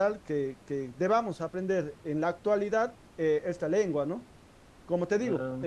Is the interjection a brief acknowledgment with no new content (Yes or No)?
Yes